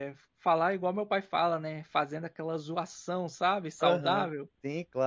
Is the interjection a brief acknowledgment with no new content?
No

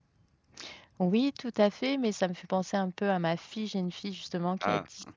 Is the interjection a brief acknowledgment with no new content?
Yes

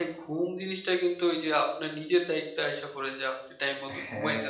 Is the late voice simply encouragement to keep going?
Yes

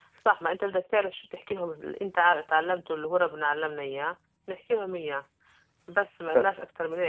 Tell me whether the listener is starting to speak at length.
No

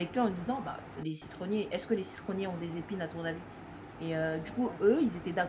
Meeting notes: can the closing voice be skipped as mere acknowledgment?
Yes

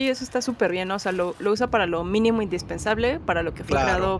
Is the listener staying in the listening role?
Yes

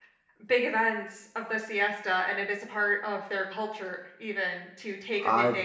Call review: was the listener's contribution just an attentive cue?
No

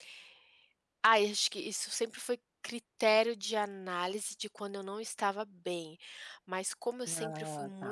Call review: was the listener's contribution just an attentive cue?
Yes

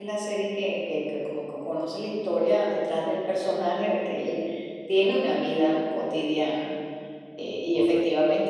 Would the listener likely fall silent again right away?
Yes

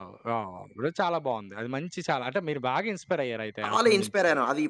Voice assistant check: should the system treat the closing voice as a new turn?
Yes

